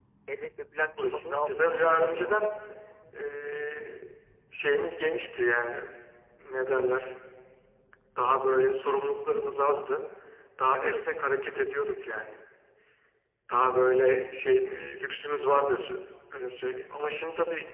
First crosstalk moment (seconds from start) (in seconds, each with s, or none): 1.0 s